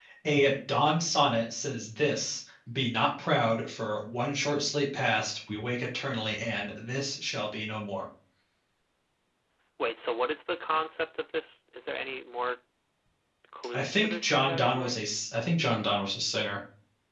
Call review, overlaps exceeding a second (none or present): present